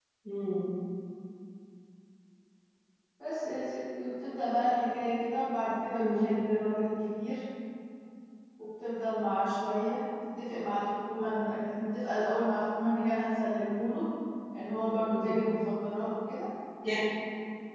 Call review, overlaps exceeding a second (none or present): none